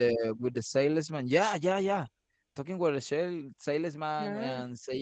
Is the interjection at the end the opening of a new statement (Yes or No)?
No